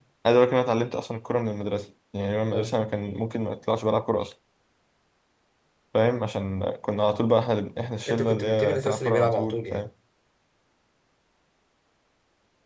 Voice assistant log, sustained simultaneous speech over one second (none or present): present